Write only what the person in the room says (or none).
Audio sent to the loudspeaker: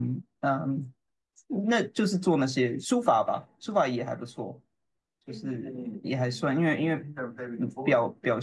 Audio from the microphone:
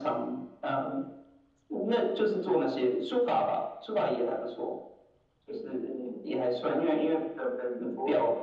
none